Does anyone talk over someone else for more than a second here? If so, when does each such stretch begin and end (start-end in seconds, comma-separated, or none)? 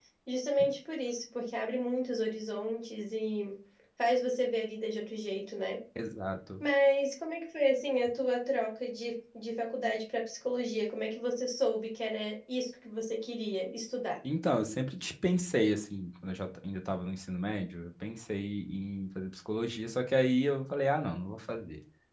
none